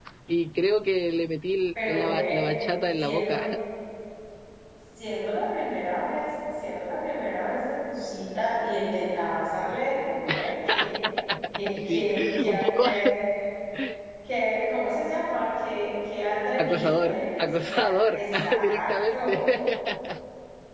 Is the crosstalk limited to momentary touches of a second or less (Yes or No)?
No